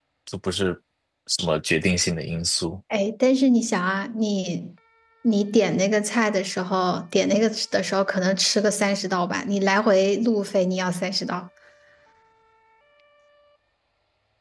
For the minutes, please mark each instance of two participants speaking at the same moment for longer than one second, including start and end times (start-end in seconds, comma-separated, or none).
none